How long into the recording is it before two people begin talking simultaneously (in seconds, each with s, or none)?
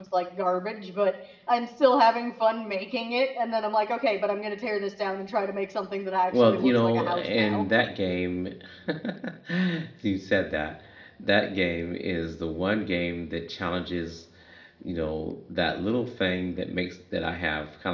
6.3 s